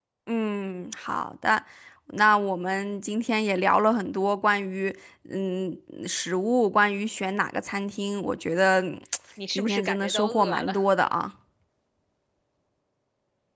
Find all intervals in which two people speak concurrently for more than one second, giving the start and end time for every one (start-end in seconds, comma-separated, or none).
9.6-10.8